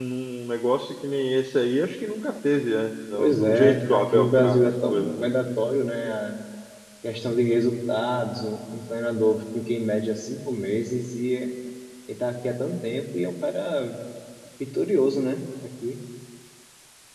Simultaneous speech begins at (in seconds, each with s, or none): 3.1 s